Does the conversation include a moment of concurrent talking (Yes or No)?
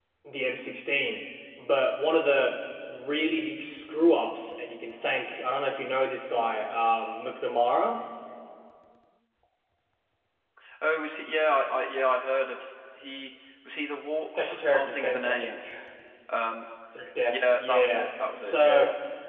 Yes